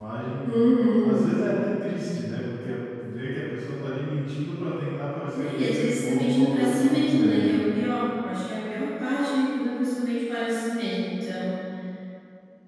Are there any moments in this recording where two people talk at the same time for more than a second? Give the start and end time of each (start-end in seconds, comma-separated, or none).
5.3-7.5